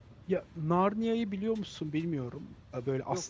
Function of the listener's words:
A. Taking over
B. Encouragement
B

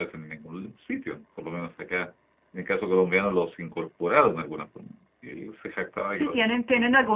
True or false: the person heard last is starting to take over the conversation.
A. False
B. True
B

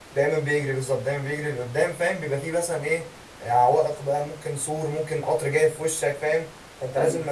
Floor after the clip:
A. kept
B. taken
A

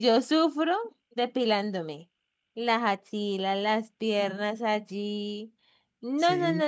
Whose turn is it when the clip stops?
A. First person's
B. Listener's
A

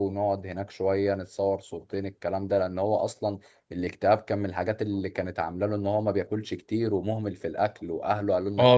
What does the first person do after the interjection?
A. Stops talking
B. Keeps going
A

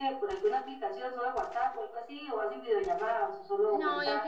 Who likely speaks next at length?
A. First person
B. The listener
B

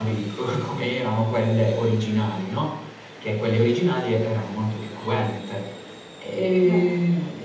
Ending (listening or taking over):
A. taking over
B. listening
B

